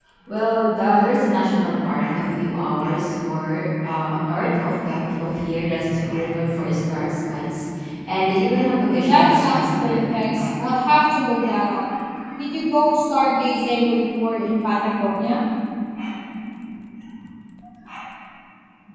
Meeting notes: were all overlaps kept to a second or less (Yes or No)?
No